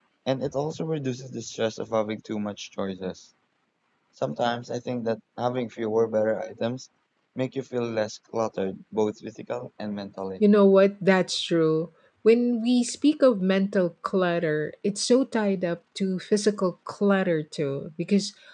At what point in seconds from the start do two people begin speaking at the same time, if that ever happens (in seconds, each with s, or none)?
none